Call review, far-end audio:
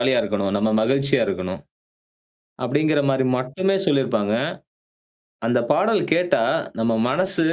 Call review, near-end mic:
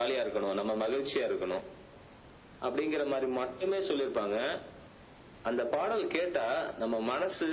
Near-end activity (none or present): none